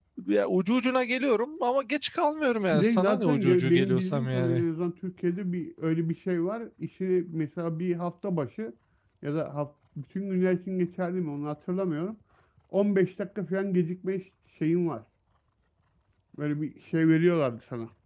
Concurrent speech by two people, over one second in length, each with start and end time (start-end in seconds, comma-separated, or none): 2.7-4.6